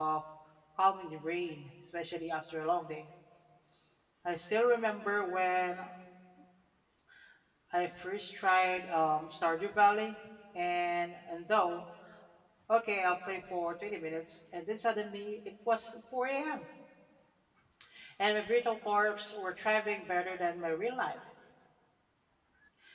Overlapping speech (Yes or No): No